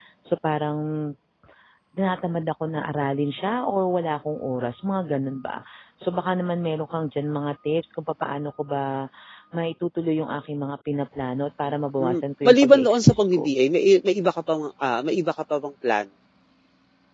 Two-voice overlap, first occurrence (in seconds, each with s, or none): 12.0 s